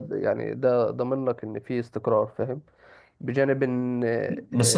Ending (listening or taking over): taking over